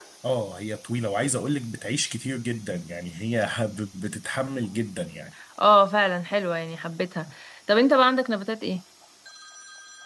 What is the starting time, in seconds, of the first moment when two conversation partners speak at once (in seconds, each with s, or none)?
none